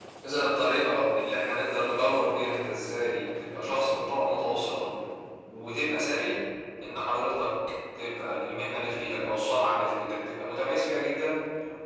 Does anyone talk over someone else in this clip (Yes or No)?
No